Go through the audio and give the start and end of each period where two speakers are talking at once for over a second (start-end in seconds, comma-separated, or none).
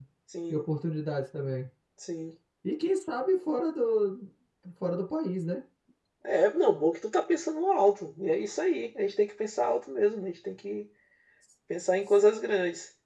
none